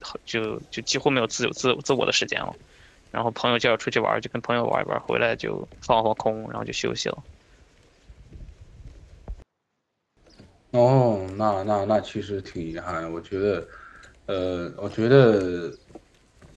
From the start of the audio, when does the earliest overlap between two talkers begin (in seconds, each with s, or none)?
none